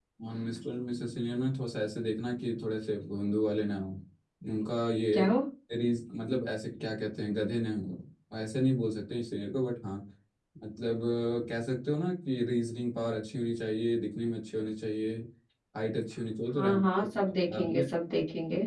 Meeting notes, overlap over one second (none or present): present